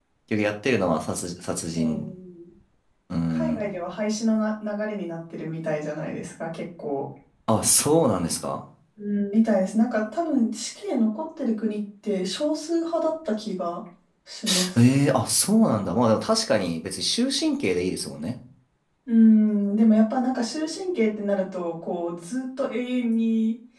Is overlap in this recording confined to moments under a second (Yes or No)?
Yes